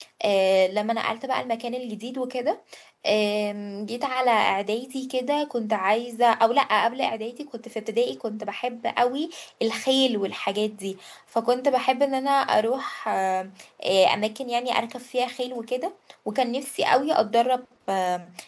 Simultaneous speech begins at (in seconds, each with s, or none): none